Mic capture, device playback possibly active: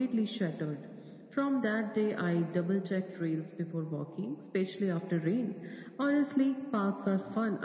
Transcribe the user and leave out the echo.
none

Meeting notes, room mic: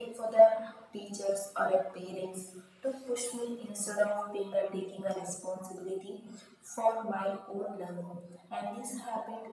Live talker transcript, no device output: none

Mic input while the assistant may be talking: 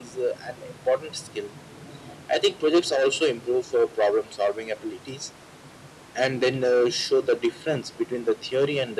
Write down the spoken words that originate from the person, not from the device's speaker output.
none

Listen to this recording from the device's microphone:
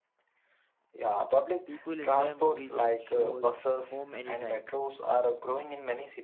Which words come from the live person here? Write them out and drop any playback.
people enjoy movies and shows home anytime,

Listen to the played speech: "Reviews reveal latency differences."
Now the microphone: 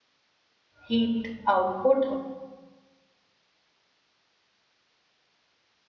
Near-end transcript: heat output

